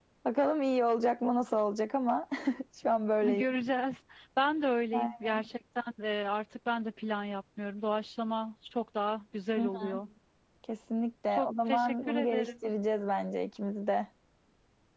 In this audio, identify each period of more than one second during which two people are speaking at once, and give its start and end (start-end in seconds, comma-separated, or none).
11.3-12.5